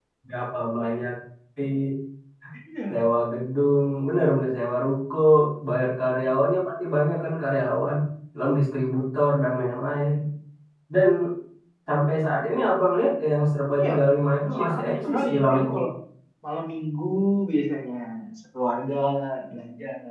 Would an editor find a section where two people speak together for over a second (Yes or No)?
Yes